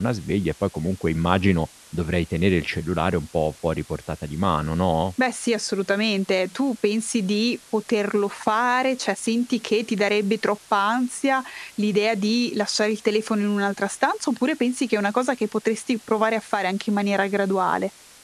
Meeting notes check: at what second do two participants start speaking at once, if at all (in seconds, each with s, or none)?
none